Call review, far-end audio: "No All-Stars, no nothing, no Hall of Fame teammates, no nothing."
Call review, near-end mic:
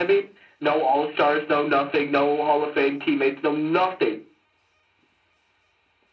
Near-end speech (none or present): none